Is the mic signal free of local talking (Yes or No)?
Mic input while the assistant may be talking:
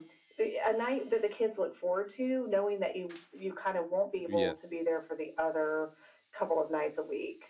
No